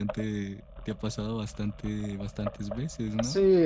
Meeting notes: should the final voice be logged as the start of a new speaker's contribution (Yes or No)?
Yes